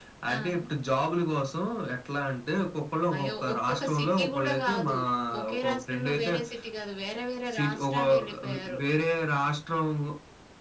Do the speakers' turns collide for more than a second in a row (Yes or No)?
Yes